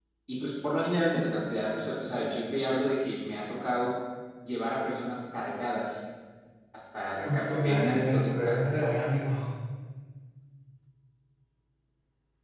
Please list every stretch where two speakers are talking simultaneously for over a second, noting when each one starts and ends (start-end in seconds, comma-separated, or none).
7.2-8.8